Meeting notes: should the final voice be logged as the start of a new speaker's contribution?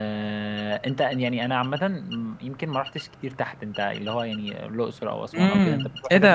Yes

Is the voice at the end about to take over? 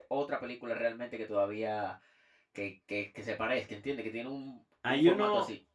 Yes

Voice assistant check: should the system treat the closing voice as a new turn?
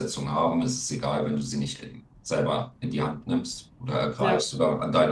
No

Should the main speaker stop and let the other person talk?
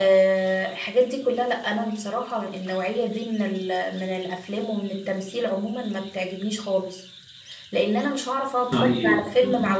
No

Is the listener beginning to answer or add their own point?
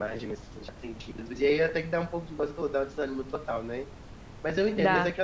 No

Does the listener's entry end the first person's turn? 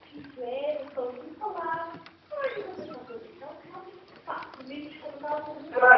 Yes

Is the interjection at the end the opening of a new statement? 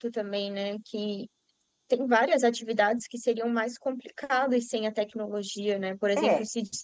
No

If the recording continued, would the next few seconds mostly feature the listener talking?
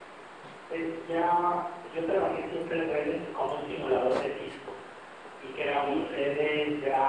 No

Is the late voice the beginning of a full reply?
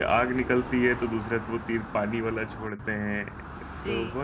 No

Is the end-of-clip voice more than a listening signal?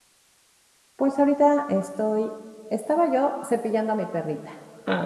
Yes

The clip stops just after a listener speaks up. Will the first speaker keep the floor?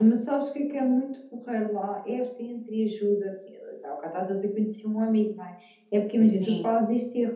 Yes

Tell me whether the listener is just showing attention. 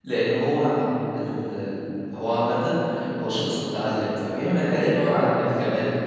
No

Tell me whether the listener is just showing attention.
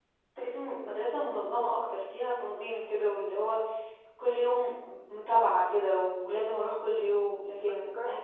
Yes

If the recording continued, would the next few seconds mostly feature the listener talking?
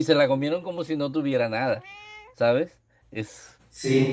Yes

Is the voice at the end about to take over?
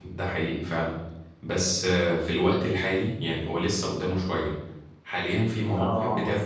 No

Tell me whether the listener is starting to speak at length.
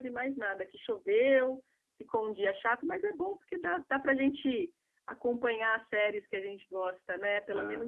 Yes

